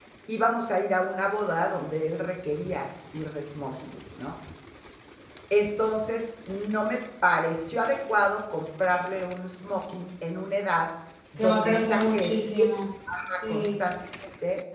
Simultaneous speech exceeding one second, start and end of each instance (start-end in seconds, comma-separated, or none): 11.4-12.7